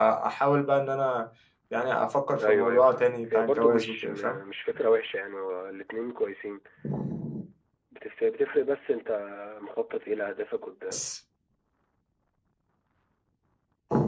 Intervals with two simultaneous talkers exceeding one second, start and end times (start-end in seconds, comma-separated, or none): 2.4-4.4